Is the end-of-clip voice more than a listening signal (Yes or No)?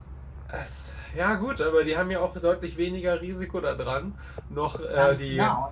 Yes